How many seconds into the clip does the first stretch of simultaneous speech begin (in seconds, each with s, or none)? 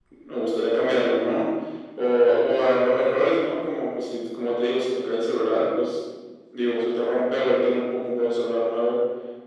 none